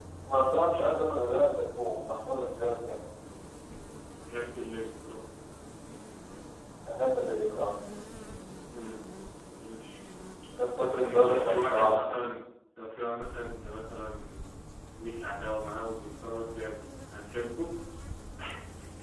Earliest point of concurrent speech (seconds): 10.7 s

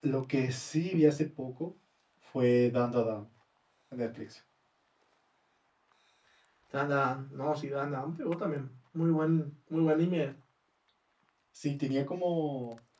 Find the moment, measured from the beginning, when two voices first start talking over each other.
none

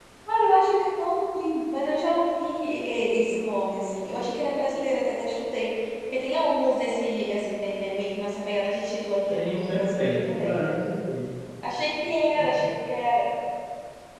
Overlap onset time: 9.3 s

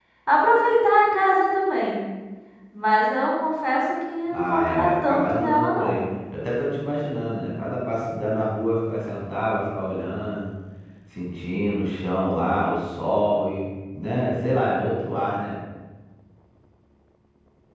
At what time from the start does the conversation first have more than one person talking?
4.3 s

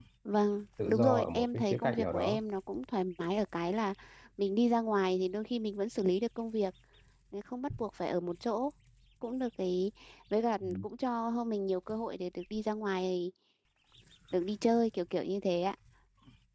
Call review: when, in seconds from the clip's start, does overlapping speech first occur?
0.9 s

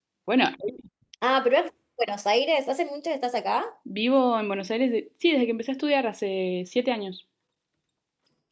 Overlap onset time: none

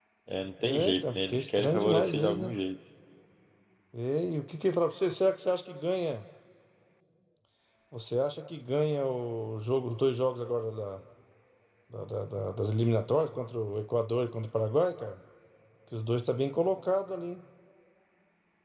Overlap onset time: 0.6 s

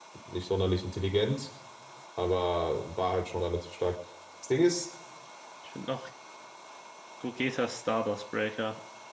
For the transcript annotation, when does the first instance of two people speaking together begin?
none

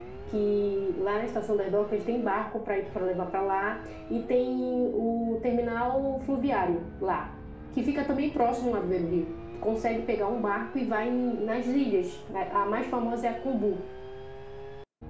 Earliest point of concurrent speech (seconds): none

